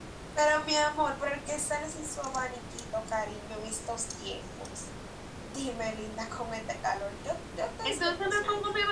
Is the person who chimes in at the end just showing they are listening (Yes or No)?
No